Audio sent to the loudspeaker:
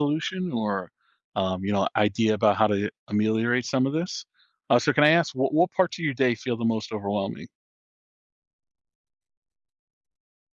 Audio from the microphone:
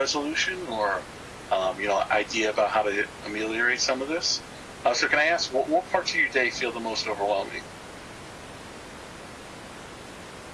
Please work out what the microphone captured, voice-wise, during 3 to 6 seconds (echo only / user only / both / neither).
echo only